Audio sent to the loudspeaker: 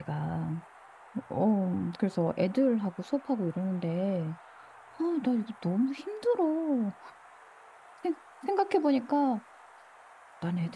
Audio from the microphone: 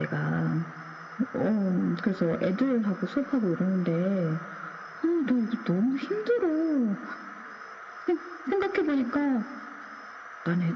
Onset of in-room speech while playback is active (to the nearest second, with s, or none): none